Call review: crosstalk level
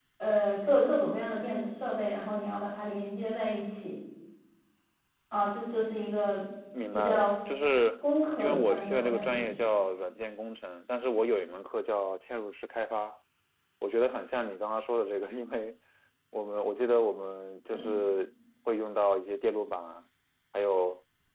present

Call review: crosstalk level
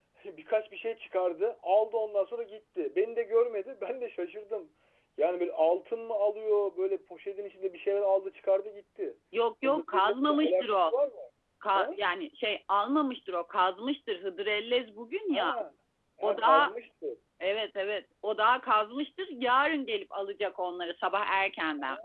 present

